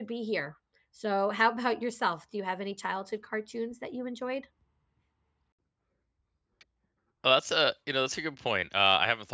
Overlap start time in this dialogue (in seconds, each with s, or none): none